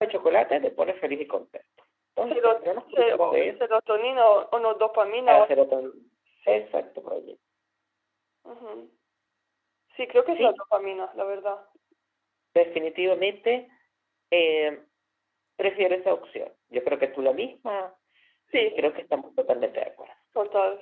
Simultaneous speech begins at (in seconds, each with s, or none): 2.2 s